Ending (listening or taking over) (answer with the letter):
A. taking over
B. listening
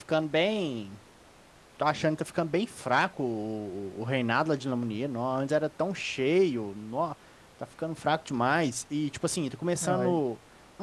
B